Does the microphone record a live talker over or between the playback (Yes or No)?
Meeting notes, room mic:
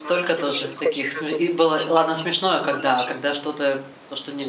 Yes